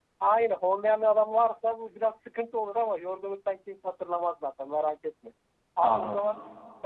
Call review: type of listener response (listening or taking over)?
listening